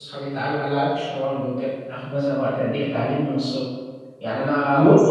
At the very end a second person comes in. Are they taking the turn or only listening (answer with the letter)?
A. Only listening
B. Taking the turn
A